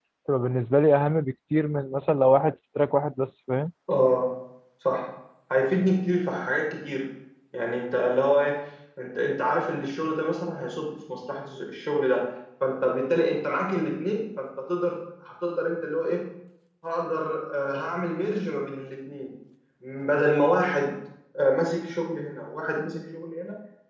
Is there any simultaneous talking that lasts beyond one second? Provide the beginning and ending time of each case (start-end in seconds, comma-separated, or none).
none